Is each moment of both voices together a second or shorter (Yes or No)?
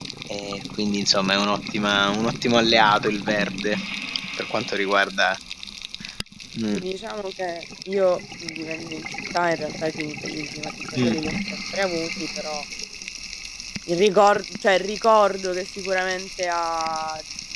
Yes